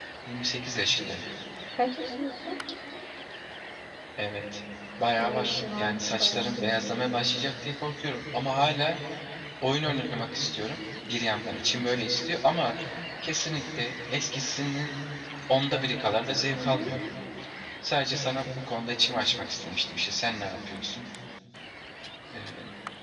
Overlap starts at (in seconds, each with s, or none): 5.2 s